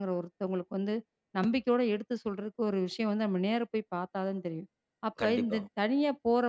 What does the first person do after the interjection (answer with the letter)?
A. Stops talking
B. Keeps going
B